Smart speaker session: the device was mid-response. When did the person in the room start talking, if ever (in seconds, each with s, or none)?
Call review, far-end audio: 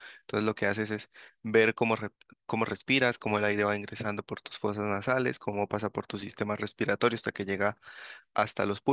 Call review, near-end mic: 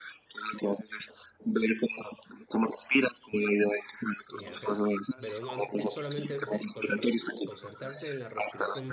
4.3 s